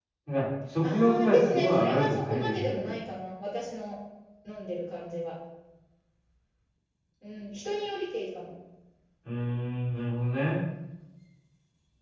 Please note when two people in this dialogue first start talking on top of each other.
0.8 s

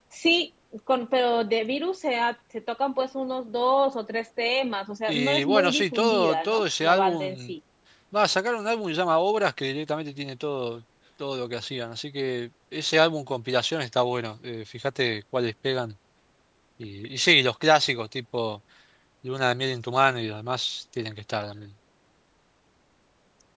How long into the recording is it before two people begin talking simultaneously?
5.1 s

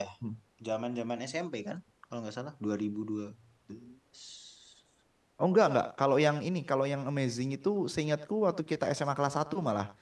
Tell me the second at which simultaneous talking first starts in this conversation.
none

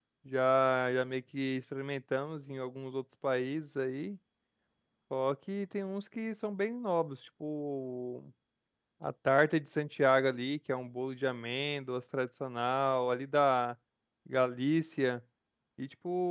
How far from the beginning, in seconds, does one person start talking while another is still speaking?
none

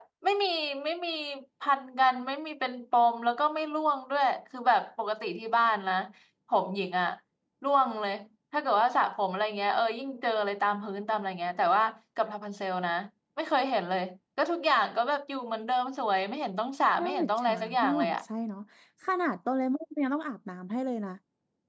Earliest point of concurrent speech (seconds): 17.0 s

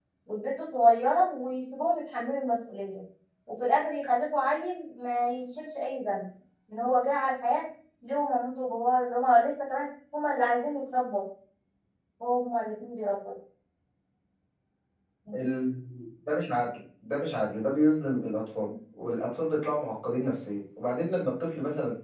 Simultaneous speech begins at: none

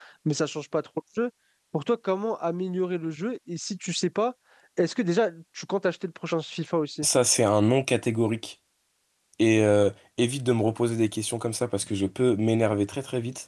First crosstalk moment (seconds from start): none

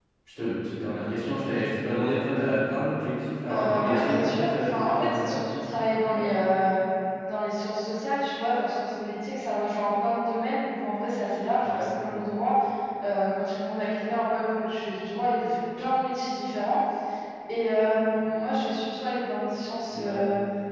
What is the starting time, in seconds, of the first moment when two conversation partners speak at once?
3.5 s

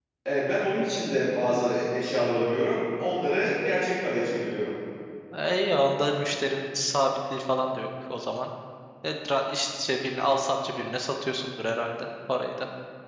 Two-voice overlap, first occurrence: none

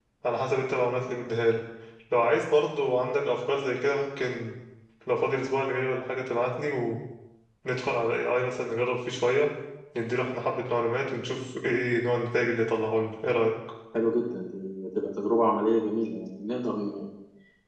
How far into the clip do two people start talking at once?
none

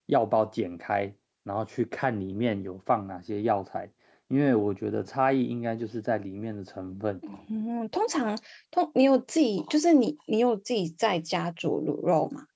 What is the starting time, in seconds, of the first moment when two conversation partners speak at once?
none

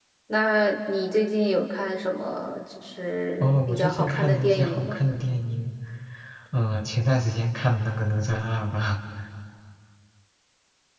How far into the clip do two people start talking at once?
3.4 s

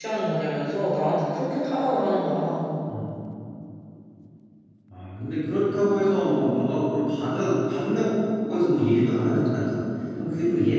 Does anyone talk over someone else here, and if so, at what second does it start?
none

